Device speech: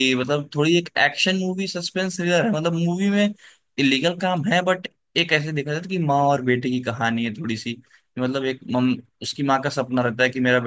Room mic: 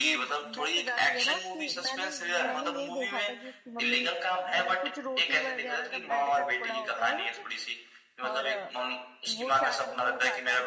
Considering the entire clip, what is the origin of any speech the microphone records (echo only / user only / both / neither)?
both